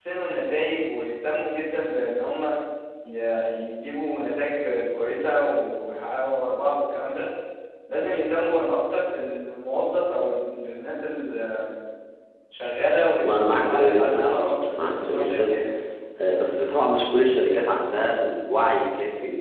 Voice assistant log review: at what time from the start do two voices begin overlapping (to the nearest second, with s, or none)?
13 s